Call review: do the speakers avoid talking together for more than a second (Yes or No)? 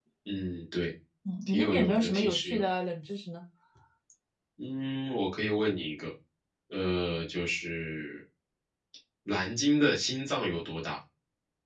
No